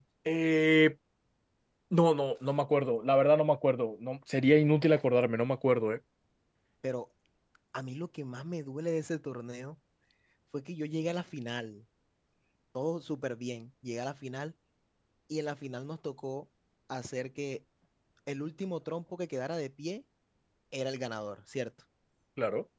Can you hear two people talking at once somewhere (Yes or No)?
No